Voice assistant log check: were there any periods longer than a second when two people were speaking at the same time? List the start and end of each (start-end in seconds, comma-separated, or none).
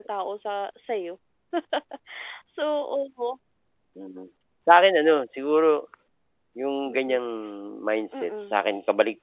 none